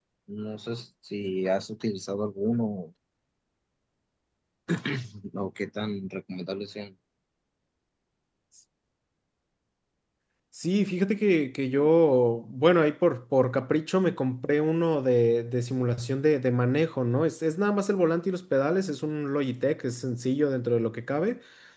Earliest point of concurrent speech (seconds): none

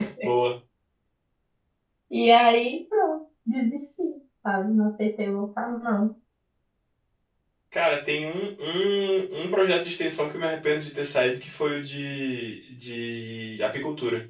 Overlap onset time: none

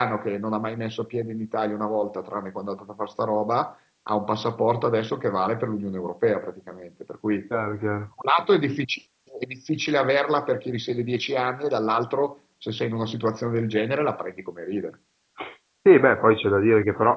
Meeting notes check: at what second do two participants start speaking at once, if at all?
none

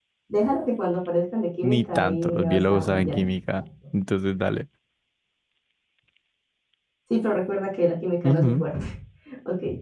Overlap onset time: 1.6 s

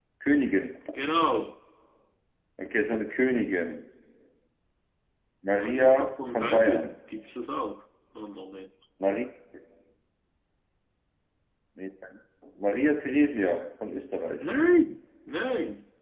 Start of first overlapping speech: 5.5 s

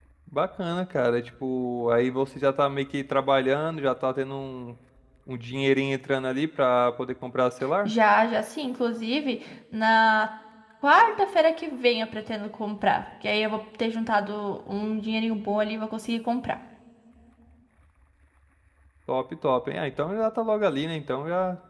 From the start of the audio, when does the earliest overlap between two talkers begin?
none

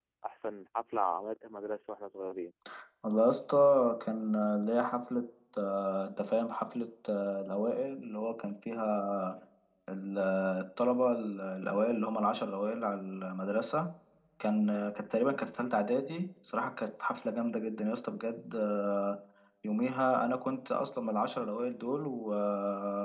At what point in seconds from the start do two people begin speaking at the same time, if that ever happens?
none

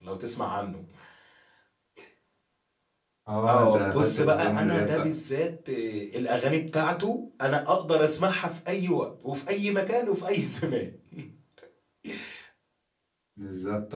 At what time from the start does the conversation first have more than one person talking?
3.5 s

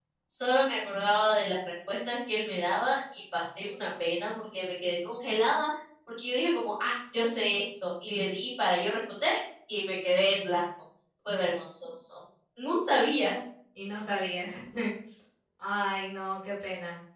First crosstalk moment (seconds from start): none

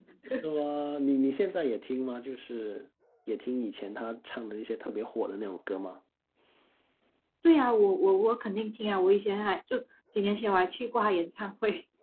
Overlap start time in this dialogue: none

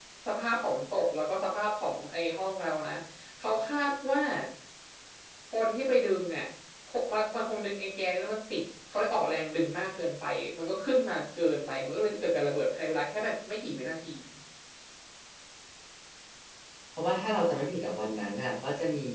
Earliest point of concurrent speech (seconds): none

